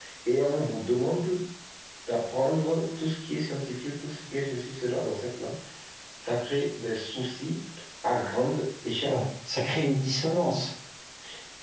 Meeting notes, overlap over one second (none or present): none